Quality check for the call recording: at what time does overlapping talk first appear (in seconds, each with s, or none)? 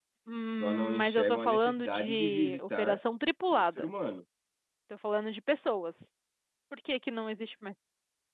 0.5 s